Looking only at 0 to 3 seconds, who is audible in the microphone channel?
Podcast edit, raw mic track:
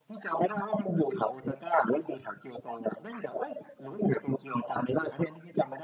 echo only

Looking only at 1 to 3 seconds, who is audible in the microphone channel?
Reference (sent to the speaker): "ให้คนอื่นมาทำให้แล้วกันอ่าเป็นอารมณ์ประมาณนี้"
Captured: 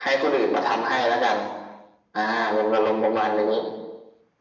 echo only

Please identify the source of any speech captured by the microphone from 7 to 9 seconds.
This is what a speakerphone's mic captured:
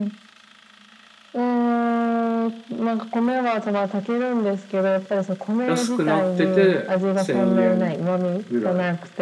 both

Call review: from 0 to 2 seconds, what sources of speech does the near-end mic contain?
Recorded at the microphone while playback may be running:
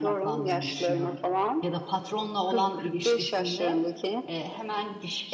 both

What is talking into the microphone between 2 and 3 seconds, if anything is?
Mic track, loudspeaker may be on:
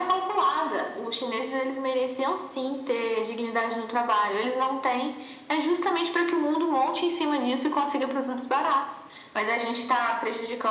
echo only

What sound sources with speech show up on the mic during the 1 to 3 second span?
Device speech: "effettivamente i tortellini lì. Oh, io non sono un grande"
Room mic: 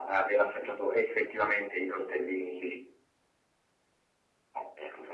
echo only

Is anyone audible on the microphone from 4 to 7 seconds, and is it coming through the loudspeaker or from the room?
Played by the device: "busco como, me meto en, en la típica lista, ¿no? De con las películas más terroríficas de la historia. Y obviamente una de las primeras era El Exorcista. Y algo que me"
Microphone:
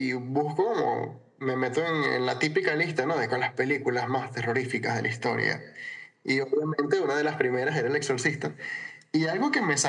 echo only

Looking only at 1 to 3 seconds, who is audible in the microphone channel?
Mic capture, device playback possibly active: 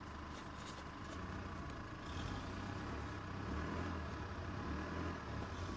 neither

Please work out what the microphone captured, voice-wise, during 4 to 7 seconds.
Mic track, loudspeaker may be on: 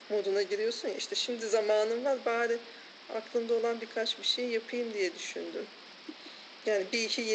echo only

